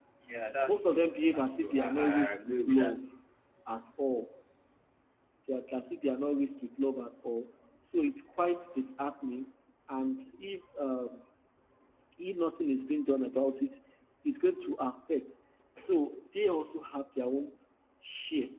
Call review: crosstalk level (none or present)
present